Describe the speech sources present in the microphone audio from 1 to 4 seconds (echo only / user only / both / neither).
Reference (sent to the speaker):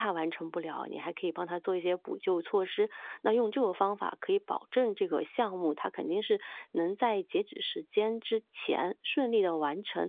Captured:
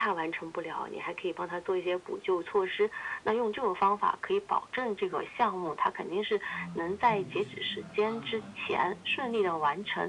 echo only